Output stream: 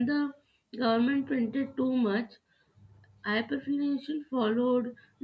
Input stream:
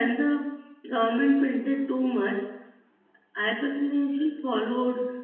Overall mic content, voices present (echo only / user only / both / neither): echo only